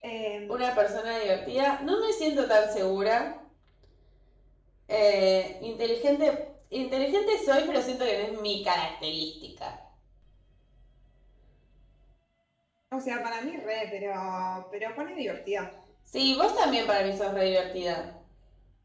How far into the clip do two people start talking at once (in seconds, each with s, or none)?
none